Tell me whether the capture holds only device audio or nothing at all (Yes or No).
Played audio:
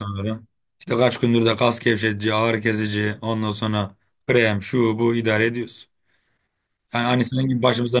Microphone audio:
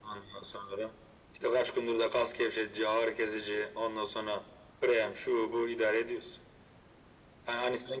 Yes